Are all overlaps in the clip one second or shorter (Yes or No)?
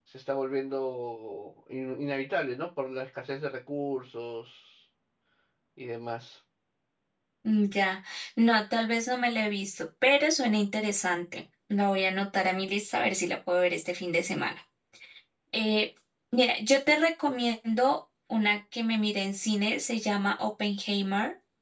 Yes